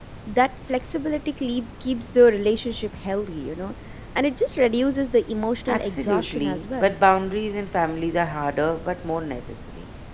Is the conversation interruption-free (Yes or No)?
No